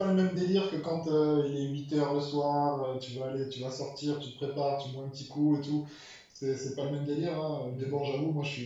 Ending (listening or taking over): listening